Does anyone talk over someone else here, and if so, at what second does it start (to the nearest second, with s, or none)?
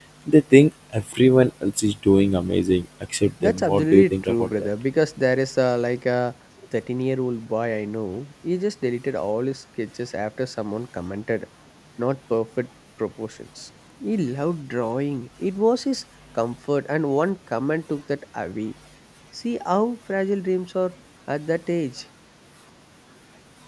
3 s